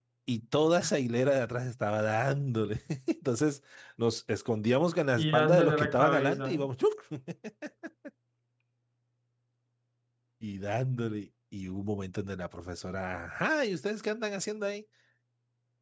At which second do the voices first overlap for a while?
5.2 s

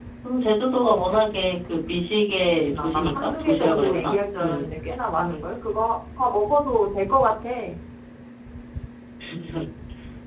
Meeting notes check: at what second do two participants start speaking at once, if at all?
2.7 s

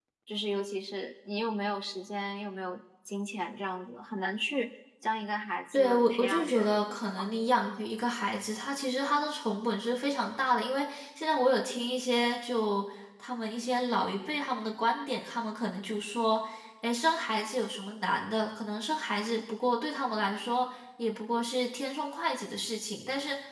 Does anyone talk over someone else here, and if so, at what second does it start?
5.7 s

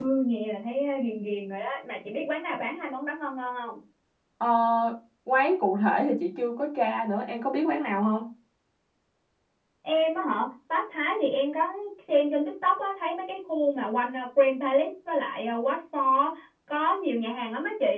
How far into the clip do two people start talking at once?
none

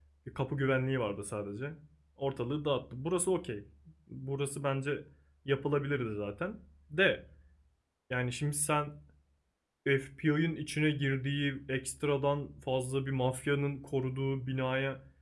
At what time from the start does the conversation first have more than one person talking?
none

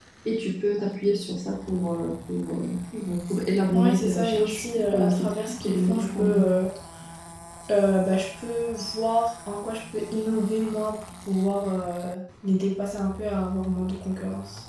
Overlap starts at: 3.7 s

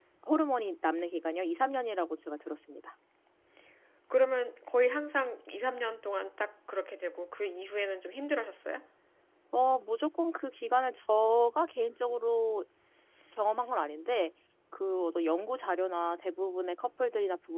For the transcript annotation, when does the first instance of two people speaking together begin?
none

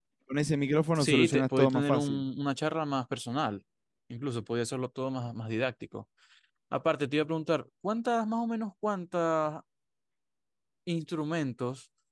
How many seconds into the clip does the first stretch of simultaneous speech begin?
0.9 s

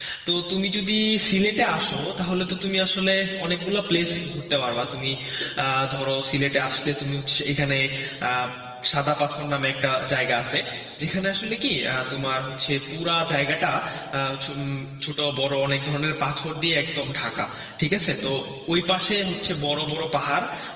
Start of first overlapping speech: none

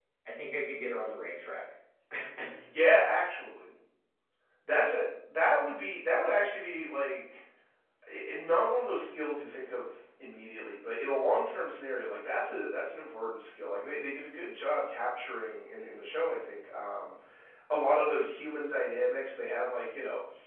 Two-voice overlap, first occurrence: none

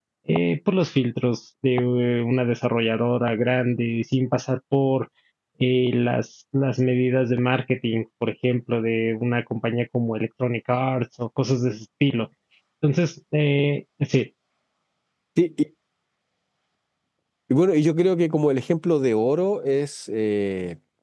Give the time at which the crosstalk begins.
none

